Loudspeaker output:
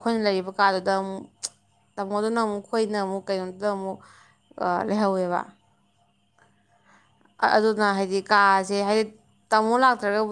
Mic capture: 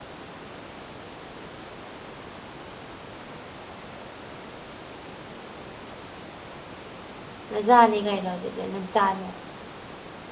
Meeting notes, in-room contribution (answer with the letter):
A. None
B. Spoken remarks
B